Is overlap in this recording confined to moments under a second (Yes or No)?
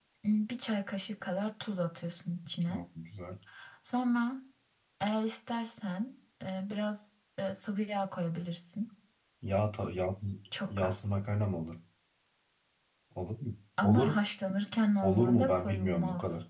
No